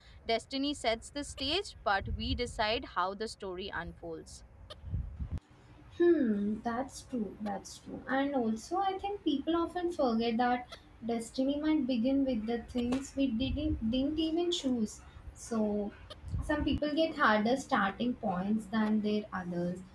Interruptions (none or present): none